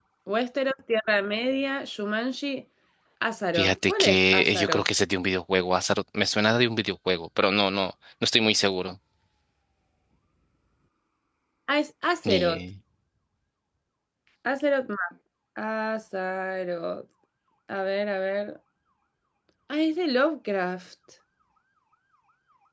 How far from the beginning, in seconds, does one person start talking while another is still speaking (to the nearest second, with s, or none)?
4 s